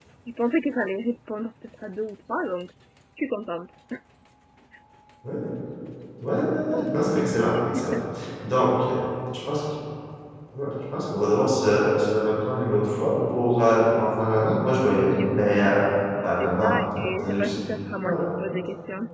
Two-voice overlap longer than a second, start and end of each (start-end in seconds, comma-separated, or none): 16.2-17.6